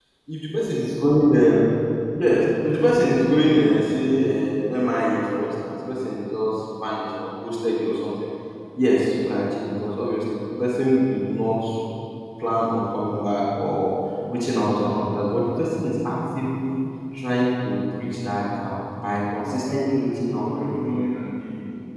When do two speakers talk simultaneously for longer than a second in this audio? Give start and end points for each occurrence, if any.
19.3-20.8

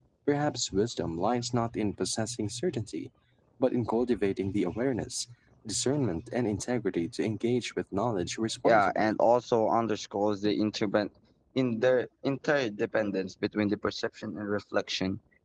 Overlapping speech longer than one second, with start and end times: none

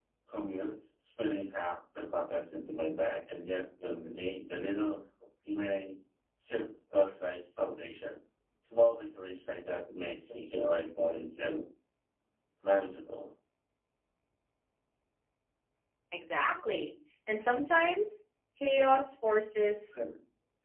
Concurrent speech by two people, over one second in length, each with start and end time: none

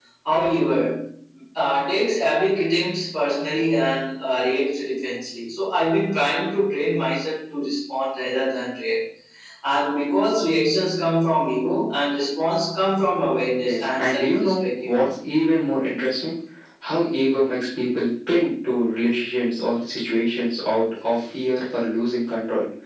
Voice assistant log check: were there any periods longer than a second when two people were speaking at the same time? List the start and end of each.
13.6-15.1

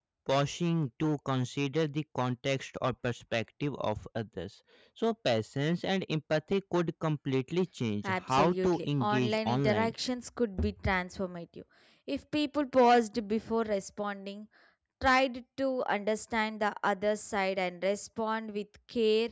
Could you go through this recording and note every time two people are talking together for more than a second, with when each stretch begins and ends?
8.3-9.9

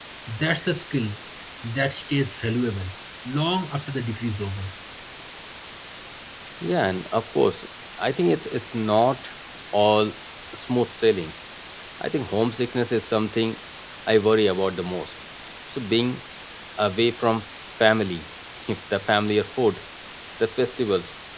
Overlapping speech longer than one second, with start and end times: none

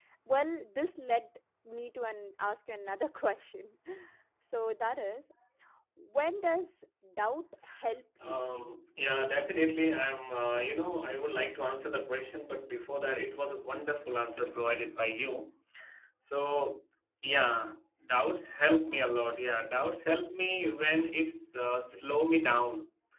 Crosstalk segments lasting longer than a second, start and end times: none

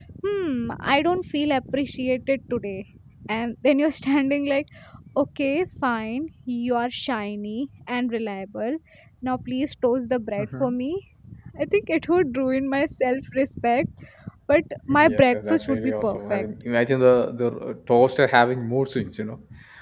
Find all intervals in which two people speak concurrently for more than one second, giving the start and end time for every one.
14.9-16.5

